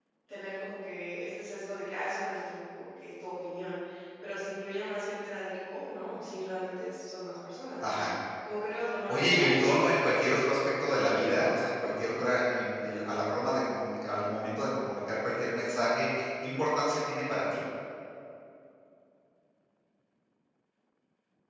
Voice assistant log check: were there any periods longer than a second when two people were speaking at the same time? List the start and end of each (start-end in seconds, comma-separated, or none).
9.1-10.4